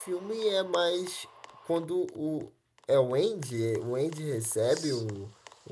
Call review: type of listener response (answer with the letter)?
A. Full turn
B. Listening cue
B